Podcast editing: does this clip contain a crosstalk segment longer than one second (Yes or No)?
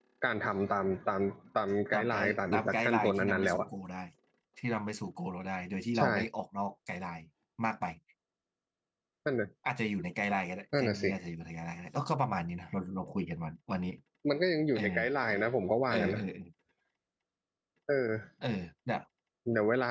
Yes